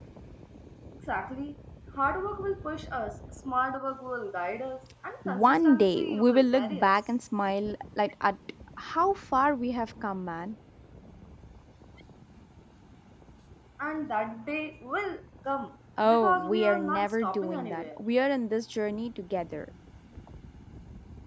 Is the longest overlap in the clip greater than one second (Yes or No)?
Yes